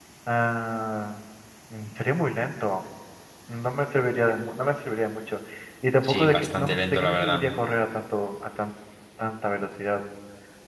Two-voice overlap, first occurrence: 6.0 s

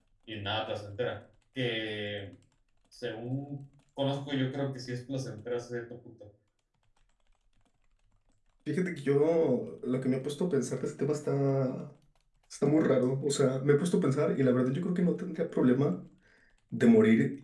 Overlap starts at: none

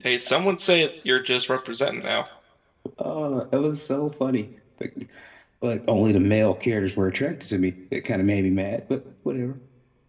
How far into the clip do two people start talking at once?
none

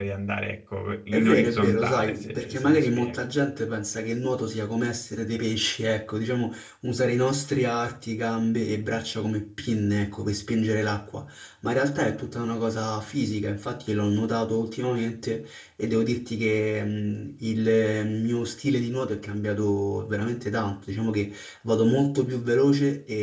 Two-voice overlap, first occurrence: 1.1 s

